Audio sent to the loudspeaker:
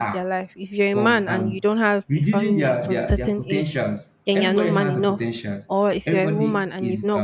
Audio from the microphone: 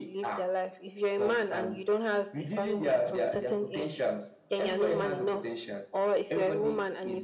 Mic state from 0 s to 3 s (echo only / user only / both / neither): echo only